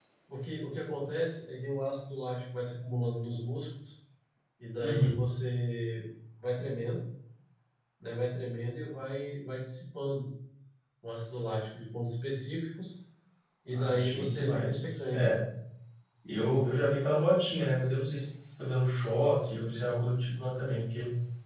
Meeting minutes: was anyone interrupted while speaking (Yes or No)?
Yes